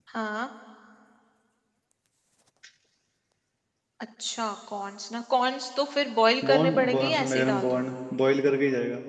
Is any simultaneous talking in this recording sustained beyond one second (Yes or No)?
Yes